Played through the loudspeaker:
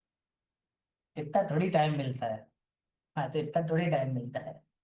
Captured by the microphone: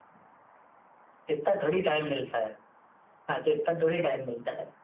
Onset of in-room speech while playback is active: none

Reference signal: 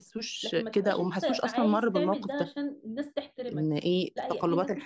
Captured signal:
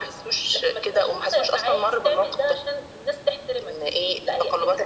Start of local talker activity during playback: none

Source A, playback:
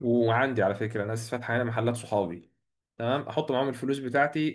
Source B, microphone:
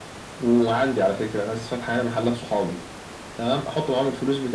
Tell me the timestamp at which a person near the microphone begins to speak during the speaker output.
none

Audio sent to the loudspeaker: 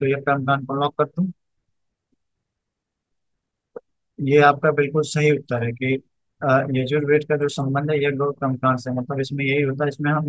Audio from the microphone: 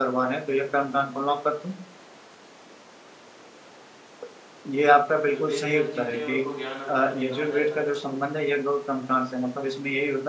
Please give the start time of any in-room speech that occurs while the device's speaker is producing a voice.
5 s

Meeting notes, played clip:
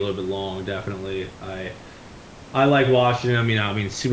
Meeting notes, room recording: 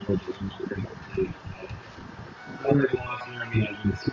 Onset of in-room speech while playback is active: none

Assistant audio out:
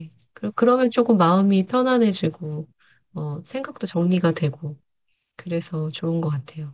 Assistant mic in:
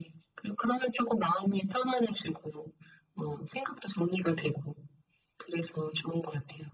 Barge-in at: none

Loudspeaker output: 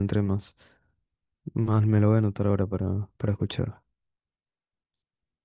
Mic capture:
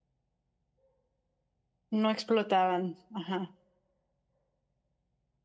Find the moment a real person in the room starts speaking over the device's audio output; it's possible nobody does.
2 s

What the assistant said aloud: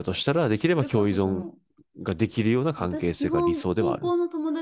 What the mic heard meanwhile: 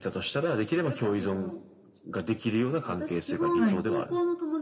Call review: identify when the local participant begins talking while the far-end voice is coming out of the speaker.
4 s

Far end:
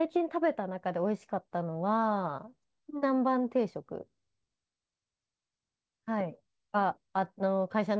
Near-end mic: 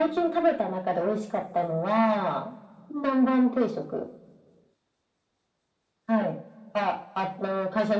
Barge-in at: none

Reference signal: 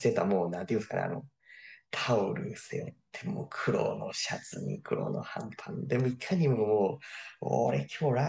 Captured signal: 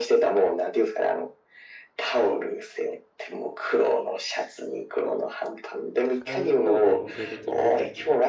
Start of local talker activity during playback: 6 s

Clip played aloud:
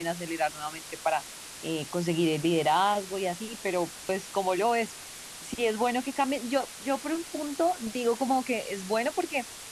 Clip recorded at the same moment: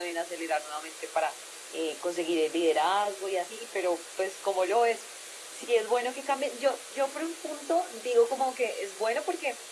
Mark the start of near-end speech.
none

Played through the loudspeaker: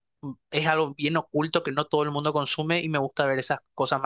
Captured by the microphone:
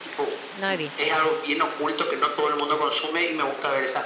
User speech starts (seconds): 1 s

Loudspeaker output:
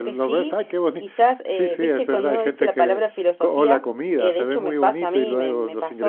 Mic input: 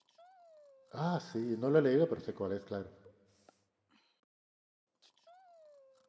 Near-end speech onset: 1 s

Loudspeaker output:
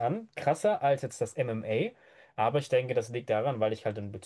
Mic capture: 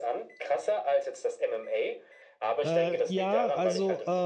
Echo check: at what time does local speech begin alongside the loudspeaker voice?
3 s

